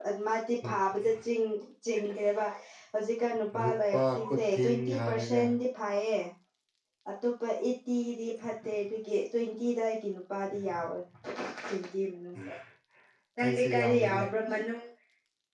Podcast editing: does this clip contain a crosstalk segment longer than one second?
Yes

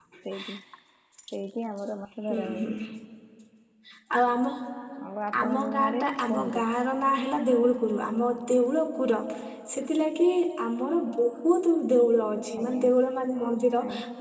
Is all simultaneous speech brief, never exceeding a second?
No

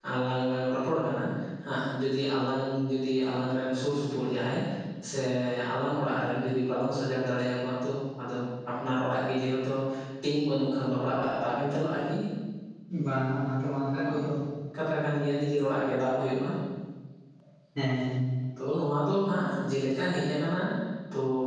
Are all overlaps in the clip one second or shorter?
Yes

